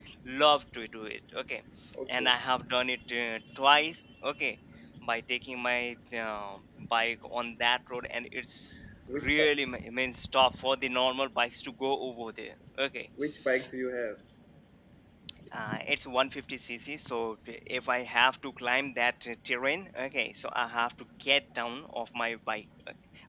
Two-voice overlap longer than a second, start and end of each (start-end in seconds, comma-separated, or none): none